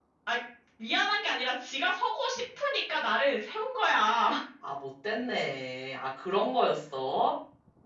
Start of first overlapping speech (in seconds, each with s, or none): none